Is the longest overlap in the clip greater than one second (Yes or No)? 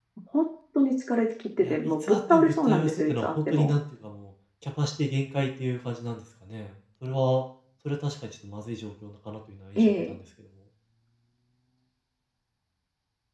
Yes